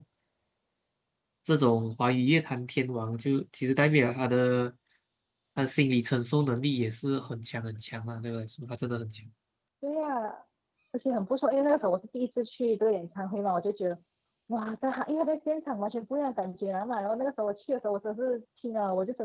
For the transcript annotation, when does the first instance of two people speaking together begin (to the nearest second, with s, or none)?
none